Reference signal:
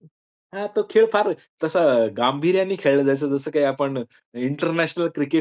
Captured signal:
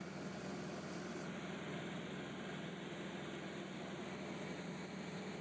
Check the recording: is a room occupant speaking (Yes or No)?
No